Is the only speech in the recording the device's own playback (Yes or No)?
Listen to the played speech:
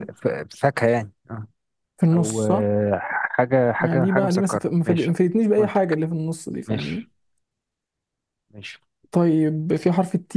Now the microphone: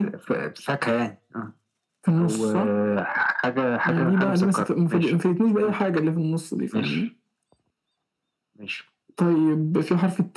Yes